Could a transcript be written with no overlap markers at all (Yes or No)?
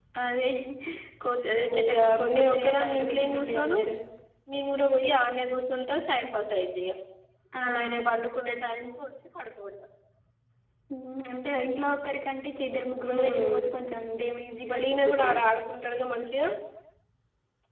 No